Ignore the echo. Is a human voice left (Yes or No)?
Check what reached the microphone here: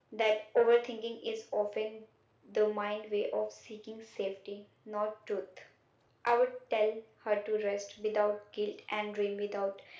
No